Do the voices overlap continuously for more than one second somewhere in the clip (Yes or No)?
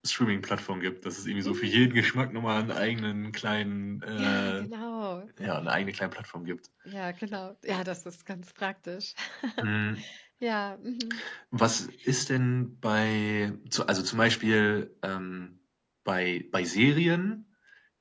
No